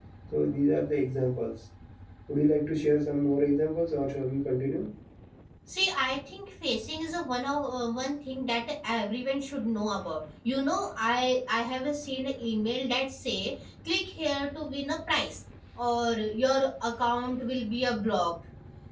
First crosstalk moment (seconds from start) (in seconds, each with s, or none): none